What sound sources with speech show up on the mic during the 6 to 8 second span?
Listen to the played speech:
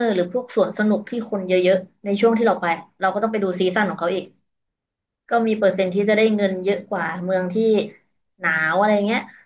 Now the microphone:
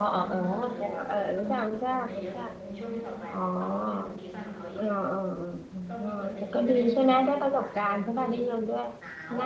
both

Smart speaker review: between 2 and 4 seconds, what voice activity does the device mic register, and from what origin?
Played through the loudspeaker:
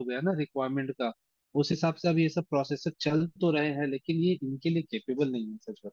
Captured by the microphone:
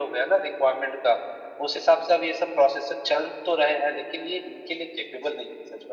echo only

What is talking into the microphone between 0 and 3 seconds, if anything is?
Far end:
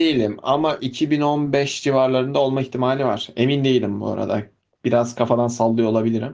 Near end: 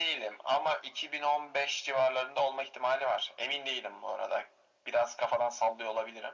echo only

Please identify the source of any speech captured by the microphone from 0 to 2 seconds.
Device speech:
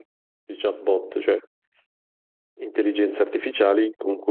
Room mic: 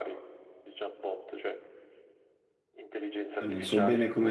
echo only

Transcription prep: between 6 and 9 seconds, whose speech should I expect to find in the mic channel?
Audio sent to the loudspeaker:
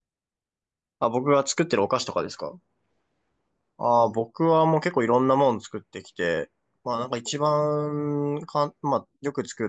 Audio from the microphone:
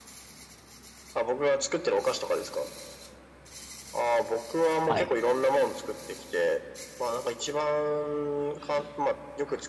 echo only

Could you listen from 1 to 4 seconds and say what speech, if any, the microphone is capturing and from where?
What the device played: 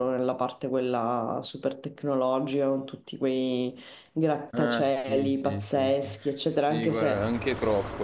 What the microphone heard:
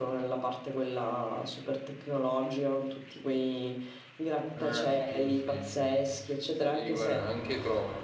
echo only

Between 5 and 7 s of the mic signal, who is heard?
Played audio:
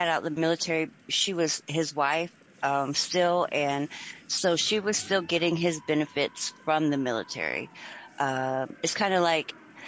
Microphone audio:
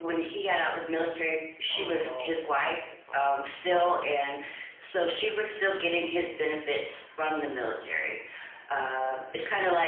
echo only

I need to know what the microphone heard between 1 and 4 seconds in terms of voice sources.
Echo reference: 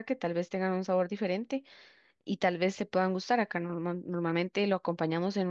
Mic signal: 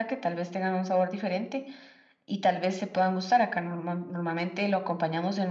echo only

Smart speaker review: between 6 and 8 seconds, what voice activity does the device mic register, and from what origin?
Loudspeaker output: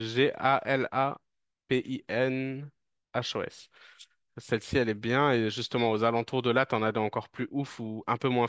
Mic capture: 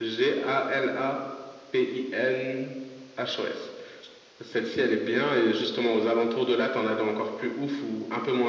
echo only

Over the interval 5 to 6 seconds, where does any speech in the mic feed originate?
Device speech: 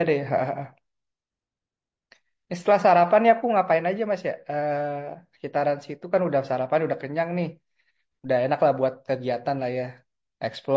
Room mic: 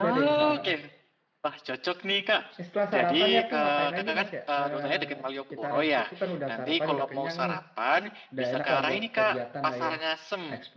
both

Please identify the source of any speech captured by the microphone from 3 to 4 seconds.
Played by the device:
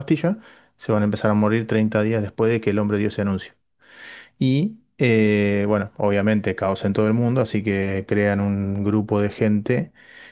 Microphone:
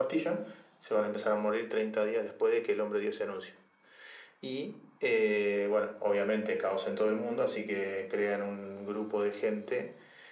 echo only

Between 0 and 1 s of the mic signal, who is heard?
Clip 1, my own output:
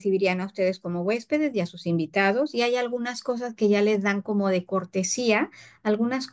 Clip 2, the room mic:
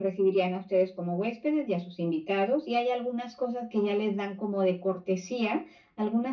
echo only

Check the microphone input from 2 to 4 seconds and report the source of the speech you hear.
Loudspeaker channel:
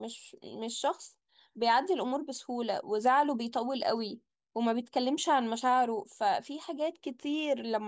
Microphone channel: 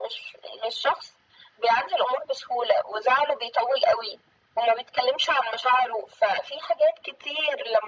echo only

